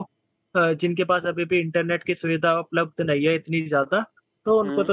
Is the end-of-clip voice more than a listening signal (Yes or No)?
No